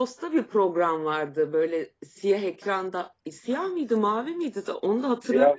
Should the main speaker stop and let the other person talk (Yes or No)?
No